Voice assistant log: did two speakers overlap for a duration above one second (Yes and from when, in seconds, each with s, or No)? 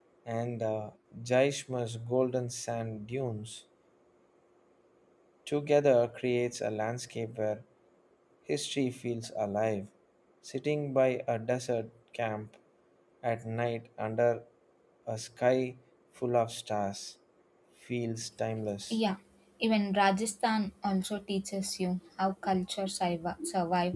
No